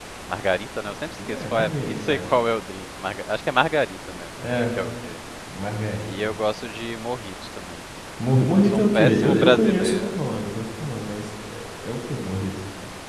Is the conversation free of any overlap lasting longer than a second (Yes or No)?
No